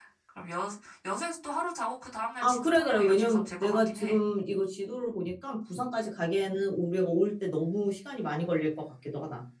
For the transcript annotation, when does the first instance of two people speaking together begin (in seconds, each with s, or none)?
2.4 s